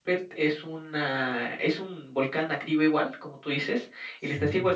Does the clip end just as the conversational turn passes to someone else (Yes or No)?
No